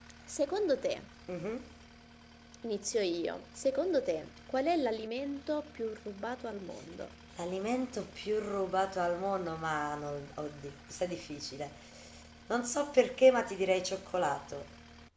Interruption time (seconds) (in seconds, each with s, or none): none